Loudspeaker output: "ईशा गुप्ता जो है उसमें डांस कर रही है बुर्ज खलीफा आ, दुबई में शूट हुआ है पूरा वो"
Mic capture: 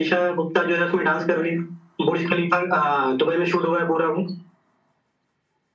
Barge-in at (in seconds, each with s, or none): none